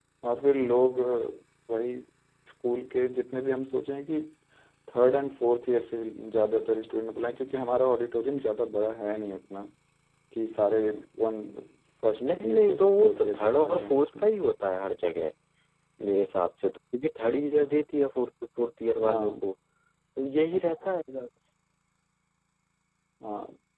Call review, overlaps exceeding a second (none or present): present